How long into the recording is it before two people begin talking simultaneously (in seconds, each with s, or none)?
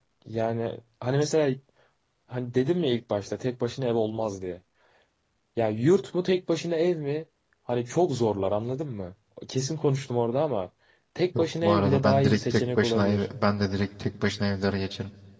11.3 s